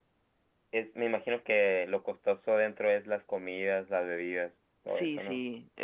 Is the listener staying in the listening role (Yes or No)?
No